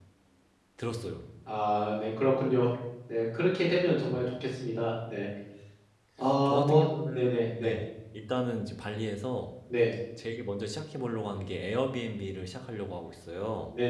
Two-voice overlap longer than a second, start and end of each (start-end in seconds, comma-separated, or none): 6.5-7.8